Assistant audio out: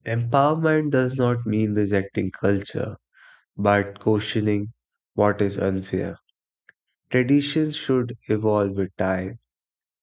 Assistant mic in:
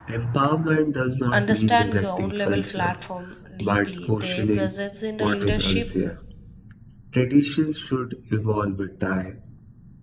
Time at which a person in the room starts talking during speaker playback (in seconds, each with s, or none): 1.3 s